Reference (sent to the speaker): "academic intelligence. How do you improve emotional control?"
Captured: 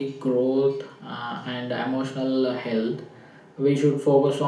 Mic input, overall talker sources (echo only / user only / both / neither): user only